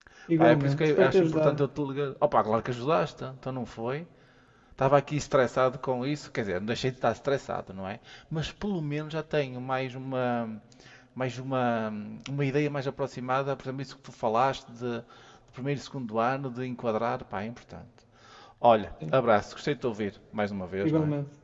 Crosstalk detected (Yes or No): Yes